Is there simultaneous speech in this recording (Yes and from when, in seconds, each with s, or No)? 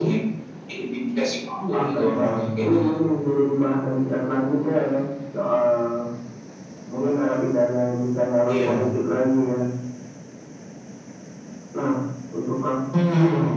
Yes, from 1.7 s